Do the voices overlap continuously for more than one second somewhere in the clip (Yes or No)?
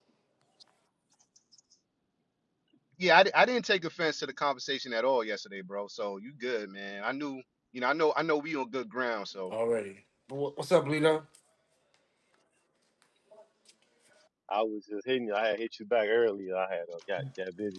No